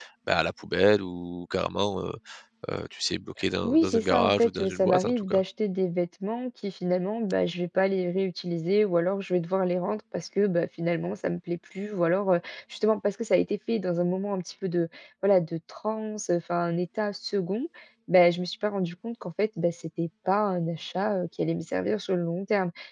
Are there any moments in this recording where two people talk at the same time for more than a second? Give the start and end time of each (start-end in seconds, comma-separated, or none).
3.6-5.4